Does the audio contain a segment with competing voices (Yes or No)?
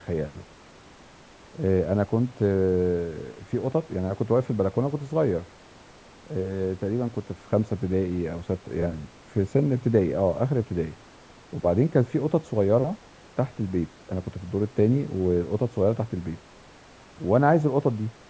No